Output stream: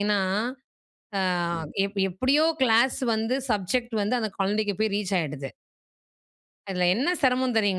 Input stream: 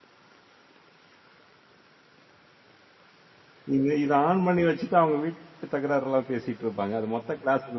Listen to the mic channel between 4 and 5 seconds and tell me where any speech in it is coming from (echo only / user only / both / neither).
user only